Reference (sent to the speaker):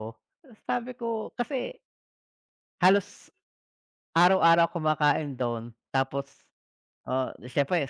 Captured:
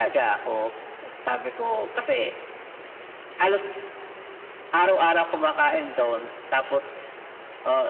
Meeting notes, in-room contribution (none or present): none